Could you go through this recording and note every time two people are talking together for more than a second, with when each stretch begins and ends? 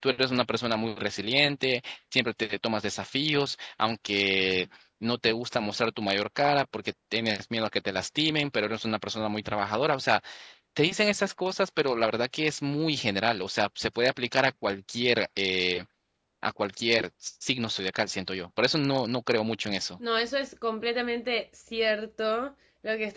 none

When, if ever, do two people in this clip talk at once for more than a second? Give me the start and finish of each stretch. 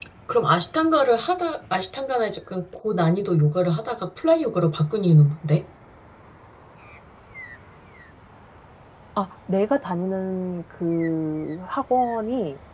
none

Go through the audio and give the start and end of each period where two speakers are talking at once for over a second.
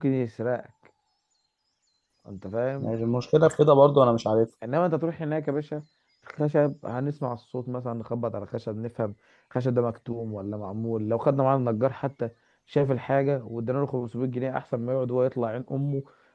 none

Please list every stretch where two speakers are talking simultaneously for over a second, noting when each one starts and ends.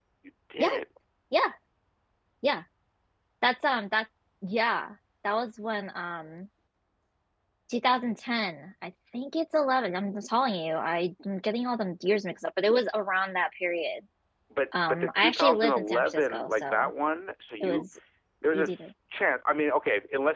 14.9-16.9

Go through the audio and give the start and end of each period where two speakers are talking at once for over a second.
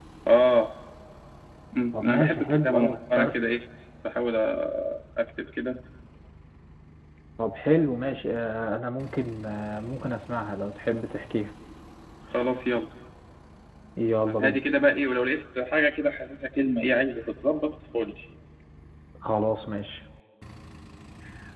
1.9-3.3

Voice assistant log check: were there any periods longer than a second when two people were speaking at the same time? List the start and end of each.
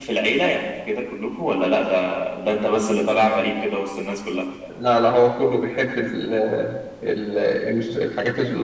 none

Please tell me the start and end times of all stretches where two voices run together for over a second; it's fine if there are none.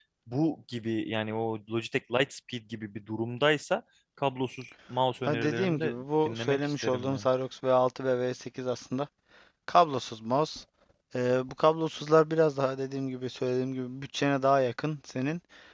5.3-7.3

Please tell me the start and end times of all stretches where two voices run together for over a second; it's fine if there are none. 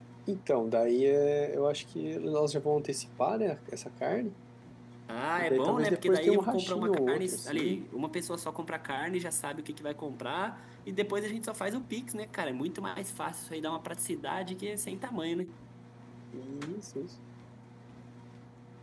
5.4-7.8

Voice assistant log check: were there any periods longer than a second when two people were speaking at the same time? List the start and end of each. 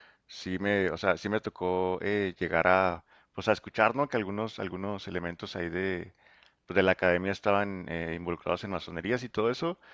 none

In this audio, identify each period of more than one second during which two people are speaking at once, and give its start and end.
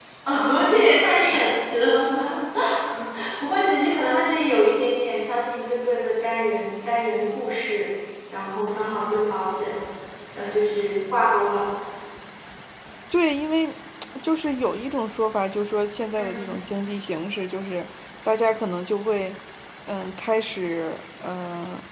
none

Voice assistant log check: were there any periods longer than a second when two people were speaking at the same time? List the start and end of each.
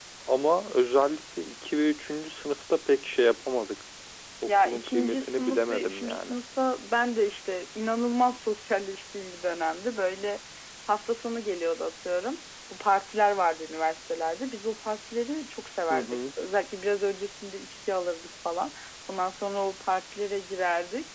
4.5-6.3

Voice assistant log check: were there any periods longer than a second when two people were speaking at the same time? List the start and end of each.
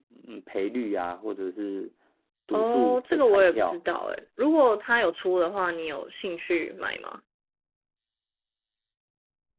2.5-3.8

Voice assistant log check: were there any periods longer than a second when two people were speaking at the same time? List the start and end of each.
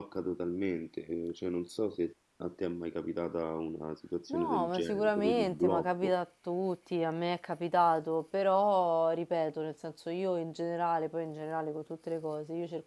4.3-6.2

